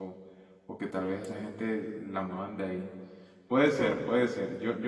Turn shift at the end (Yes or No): No